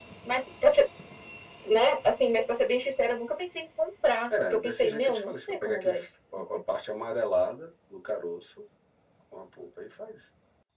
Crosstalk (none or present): present